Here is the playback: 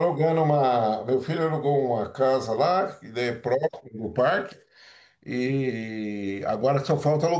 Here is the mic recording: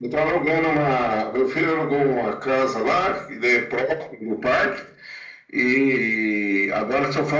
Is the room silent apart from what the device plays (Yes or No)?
Yes